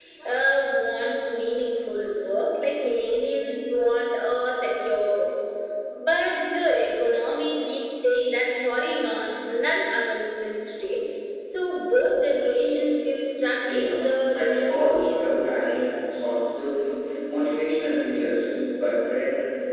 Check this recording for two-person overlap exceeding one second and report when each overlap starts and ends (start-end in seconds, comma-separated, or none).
13.7-15.2